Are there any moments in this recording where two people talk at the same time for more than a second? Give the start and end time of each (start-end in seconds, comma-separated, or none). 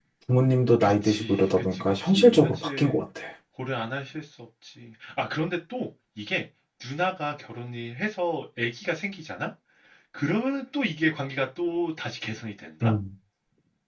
0.8-3.0